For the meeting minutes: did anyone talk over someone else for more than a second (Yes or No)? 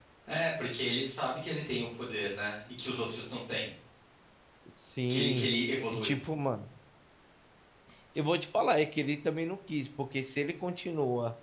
No